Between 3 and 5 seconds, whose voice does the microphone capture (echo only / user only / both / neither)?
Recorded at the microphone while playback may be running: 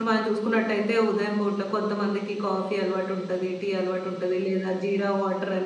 user only